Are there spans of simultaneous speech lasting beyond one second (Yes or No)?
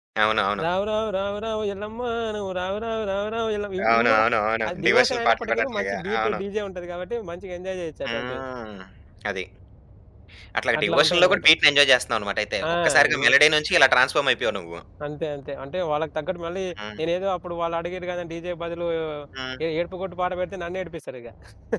Yes